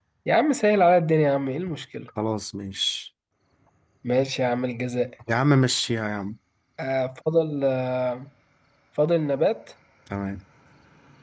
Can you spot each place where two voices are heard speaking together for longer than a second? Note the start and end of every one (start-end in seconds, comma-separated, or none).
none